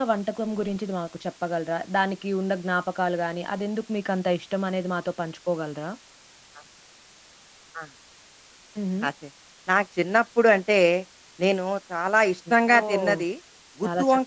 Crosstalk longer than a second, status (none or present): none